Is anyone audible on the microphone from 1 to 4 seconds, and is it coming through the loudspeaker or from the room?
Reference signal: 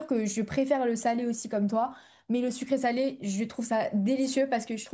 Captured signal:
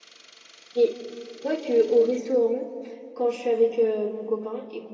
user only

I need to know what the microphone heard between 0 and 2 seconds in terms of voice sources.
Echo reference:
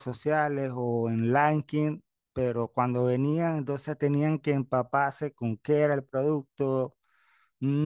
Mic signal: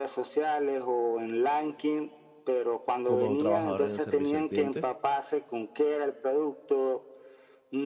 echo only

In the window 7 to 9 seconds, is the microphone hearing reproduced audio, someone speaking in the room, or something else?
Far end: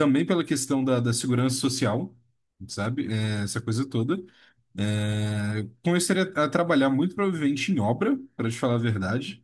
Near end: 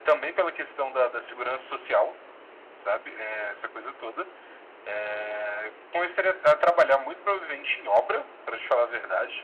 echo only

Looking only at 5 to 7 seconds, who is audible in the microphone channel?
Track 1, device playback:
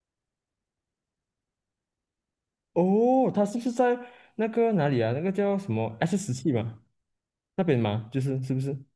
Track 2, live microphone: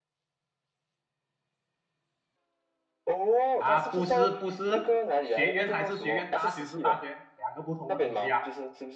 both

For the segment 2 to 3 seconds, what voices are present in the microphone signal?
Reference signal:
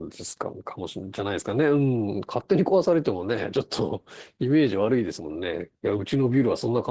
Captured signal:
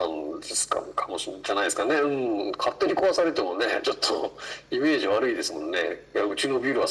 echo only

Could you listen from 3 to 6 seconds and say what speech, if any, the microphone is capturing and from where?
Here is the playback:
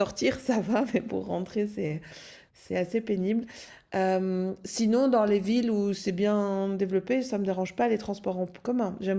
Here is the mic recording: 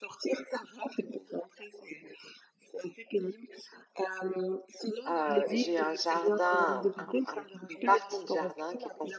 both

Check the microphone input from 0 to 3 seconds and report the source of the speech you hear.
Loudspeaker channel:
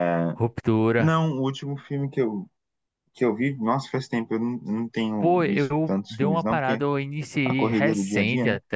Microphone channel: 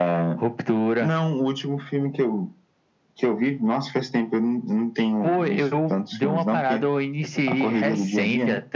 echo only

